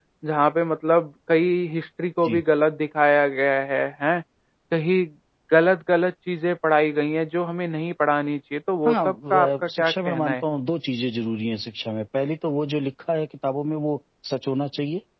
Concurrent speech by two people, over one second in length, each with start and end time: 8.9-10.4

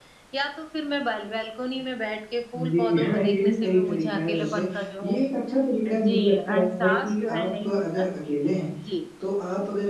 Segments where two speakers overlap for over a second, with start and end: 2.5-4.7, 5.8-8.0

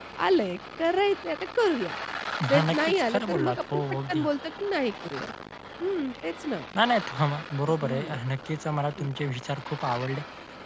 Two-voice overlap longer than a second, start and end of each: 2.7-4.2

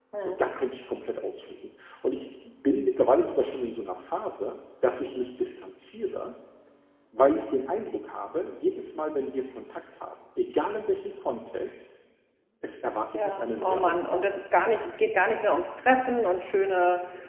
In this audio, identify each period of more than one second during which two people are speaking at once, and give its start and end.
13.1-14.4

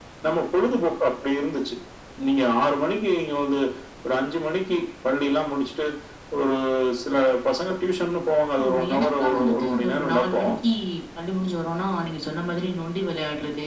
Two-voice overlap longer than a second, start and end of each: 8.6-10.5

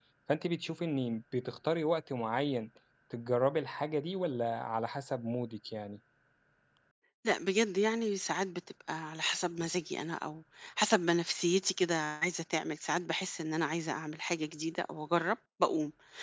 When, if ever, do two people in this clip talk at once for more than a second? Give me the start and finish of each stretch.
none

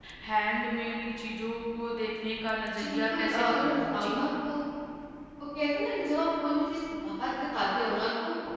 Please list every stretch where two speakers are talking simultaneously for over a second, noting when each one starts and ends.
2.8-4.2

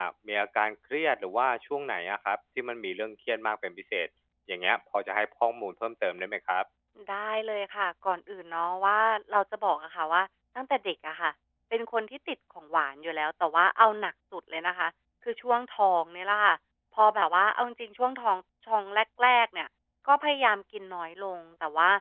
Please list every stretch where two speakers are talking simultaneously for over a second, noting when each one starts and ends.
none

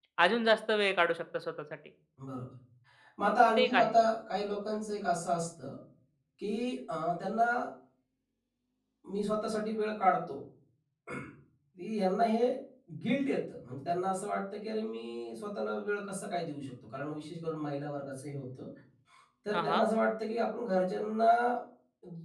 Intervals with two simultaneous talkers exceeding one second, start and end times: none

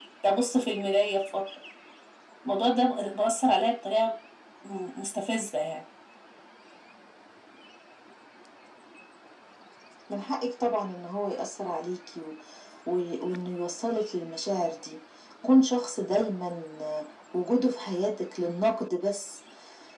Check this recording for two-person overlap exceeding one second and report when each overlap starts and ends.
none

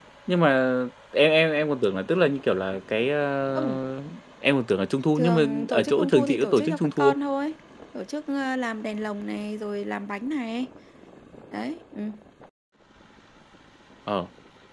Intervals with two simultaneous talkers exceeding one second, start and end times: 5.2-7.2

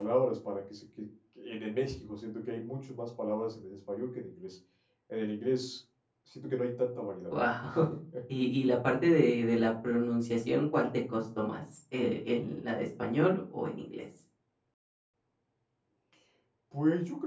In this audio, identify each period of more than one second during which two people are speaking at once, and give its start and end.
none

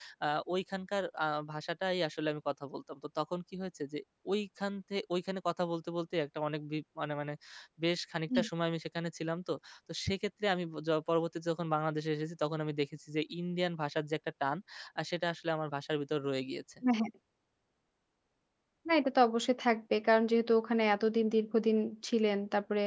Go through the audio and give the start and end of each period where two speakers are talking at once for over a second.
none

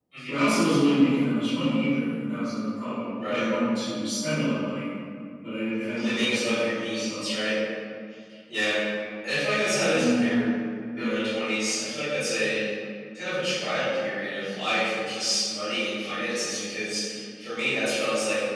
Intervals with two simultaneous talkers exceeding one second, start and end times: 5.7-7.2

